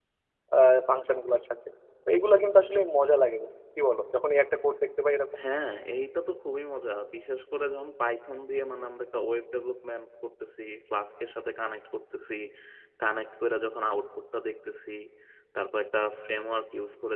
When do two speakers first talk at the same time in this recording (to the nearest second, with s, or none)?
none